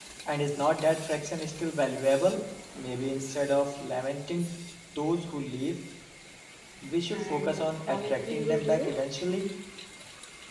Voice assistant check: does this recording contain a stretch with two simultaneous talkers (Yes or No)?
Yes